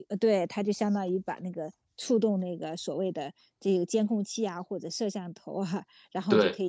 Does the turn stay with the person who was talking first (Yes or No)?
Yes